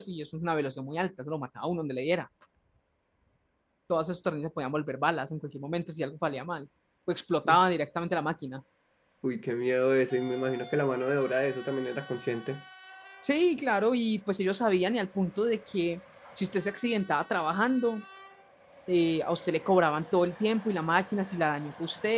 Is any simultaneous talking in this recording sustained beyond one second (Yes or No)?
No